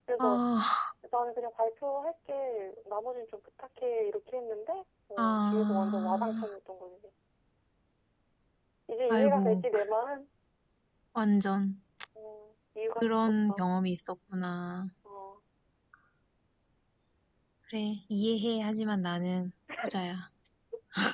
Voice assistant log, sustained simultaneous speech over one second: present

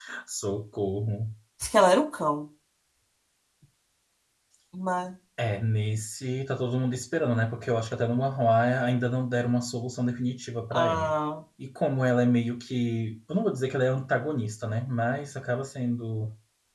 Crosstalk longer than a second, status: none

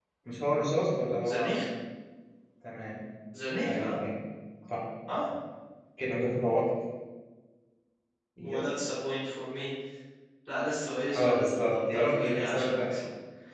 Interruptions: present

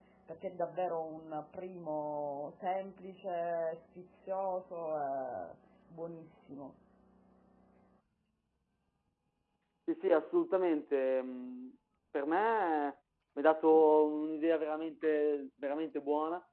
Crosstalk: none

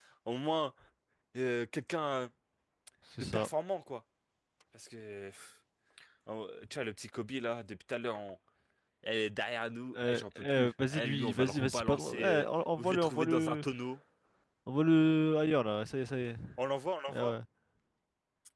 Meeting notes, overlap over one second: present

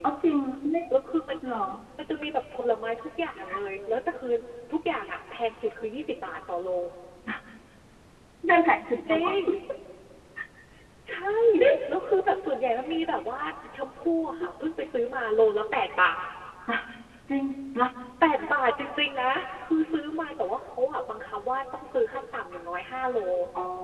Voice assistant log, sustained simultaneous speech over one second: none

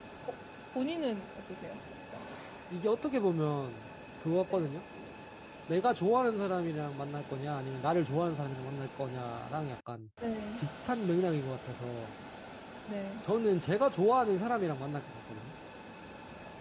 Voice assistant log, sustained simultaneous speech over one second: none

